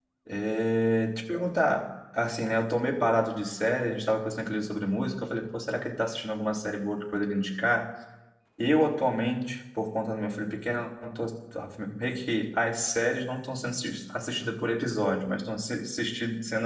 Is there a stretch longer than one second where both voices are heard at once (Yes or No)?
No